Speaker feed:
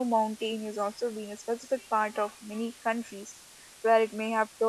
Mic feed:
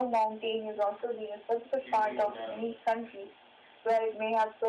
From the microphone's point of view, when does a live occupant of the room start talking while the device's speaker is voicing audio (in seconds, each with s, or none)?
1.8 s